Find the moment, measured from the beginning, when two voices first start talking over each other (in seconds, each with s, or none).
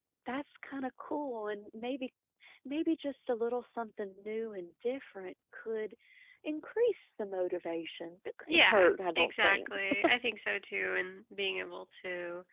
8.5 s